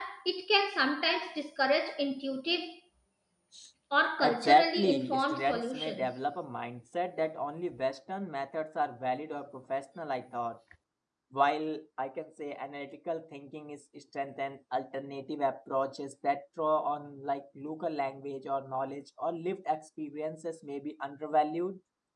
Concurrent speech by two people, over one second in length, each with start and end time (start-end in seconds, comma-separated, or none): 4.2-6.1